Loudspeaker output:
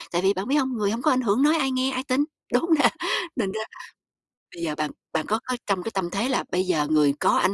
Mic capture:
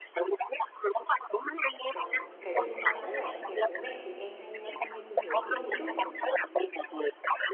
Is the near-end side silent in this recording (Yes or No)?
No